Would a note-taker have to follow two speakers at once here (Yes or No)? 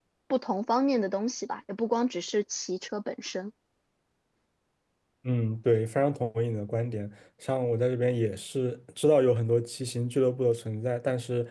No